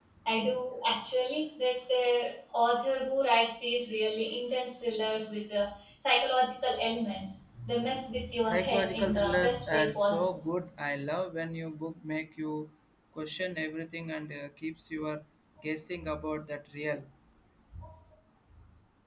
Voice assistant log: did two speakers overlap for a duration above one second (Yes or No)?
Yes